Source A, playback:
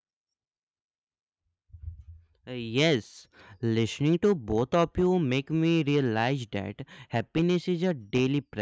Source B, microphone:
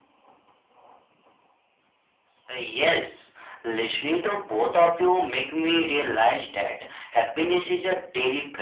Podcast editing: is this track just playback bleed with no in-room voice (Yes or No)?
Yes